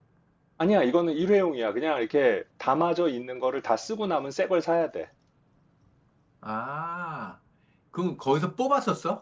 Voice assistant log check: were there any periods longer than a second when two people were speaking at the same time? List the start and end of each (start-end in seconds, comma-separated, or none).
none